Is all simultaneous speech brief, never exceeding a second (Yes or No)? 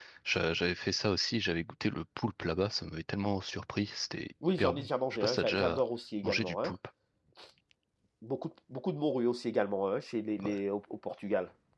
No